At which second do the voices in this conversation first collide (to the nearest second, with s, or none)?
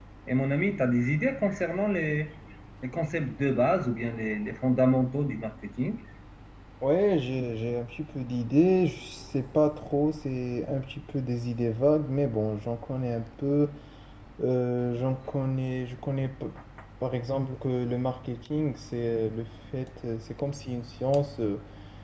none